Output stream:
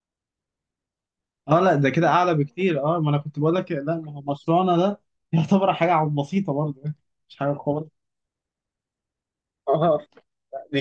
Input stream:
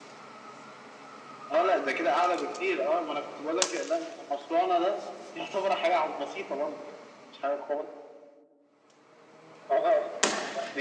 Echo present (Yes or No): Yes